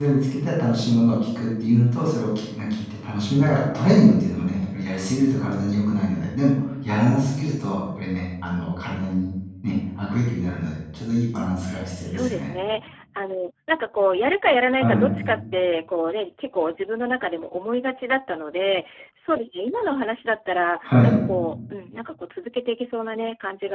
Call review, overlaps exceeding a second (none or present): none